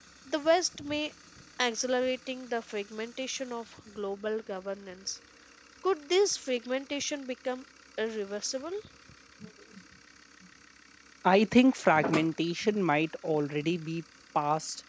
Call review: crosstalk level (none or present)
none